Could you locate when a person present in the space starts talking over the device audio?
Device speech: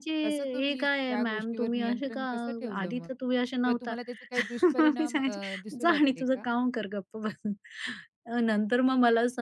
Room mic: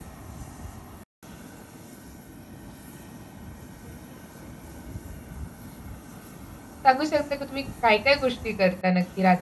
6.8 s

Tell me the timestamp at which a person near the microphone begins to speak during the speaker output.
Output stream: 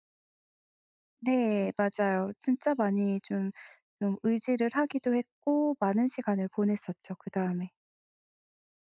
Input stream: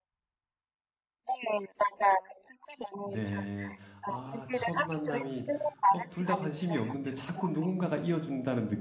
3.0 s

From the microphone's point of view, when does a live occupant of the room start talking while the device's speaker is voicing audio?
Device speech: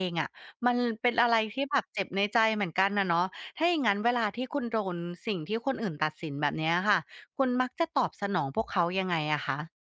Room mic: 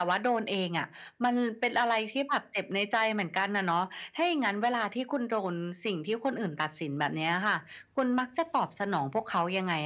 none

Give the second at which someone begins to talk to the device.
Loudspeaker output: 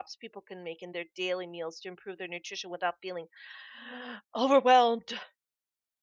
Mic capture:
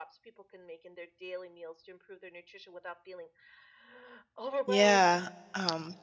4.6 s

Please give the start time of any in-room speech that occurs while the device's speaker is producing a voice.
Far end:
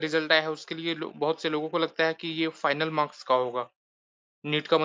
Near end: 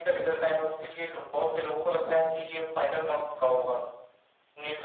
2.1 s

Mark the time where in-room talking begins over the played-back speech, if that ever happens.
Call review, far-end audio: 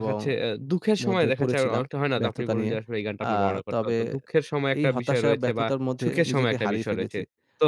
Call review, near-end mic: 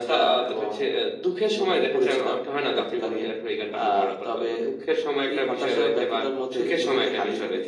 none

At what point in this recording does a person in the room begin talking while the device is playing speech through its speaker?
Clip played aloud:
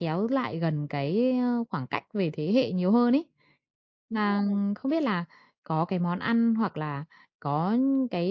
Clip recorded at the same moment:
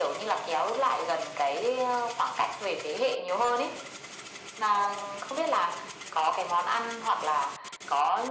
none

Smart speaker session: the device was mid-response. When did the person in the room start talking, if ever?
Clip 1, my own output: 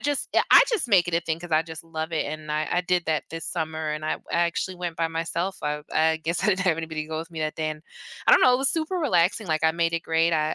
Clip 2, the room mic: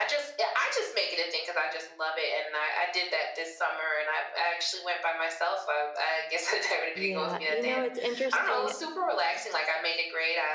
6.9 s

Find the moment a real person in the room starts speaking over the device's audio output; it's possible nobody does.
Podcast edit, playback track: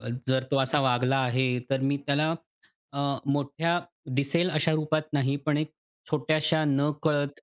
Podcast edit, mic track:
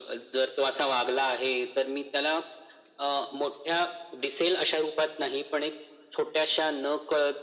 none

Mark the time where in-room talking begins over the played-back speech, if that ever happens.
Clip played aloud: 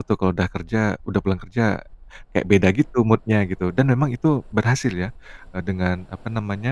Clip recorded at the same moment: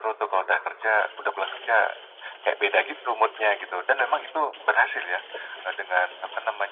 none

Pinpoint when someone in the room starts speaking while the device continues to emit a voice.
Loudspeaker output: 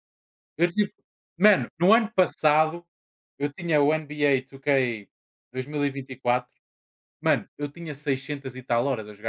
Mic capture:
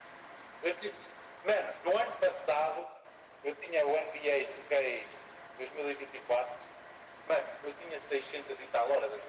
none

